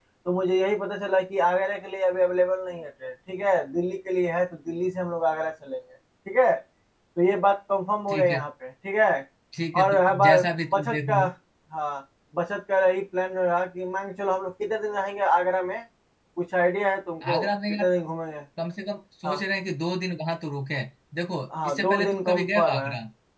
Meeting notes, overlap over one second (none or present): present